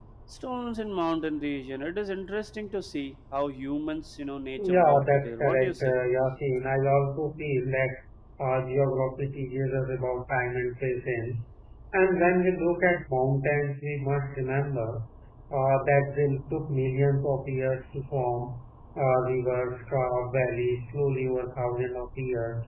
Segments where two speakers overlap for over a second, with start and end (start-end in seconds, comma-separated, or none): 4.6-5.9